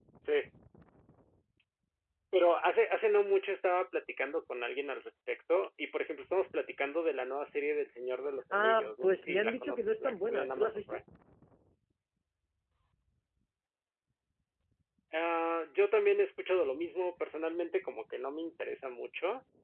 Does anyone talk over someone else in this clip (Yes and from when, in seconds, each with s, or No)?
Yes, from 8.5 s